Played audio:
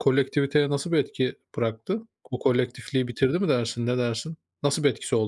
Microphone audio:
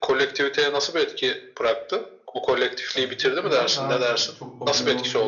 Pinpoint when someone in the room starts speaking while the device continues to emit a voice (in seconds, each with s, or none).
2.9 s